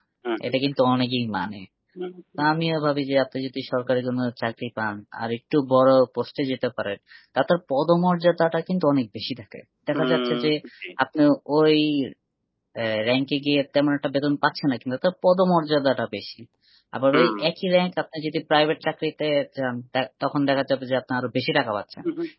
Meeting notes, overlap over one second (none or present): none